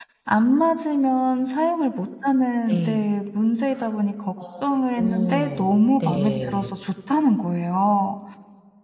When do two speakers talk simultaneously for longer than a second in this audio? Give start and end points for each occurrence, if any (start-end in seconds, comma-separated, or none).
5.0-6.7